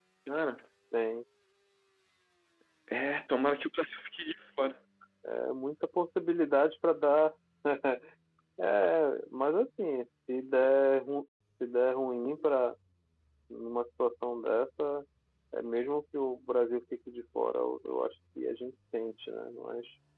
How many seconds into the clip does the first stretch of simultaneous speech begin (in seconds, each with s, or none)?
none